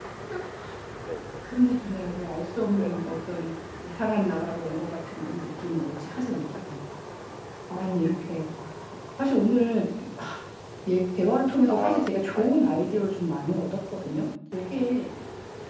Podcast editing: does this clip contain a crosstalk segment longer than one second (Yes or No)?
Yes